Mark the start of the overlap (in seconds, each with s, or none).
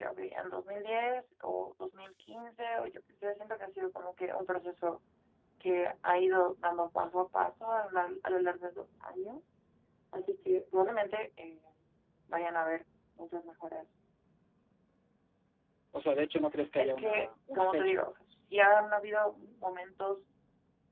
16.8 s